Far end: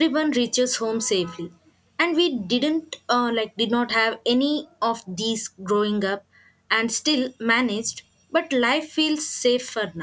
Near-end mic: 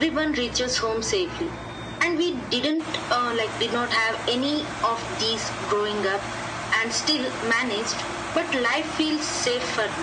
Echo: present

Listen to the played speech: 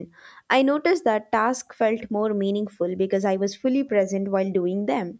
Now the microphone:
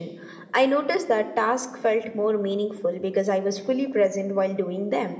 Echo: present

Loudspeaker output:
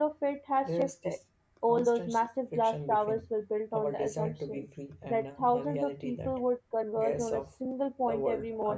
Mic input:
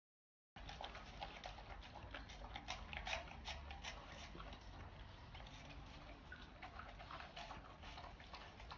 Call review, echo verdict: none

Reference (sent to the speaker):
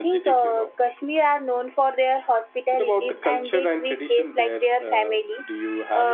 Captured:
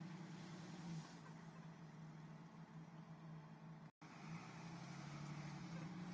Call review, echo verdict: none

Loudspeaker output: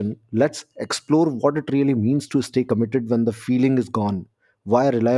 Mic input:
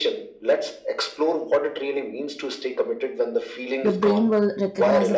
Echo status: present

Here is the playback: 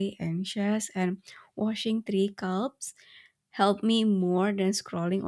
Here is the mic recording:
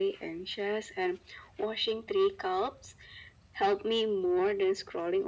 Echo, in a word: present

